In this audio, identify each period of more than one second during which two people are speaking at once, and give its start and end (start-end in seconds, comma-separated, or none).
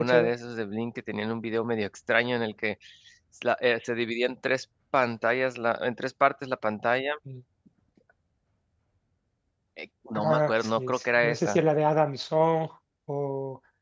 10.2-11.6